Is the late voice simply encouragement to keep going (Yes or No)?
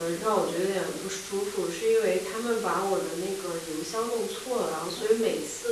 Yes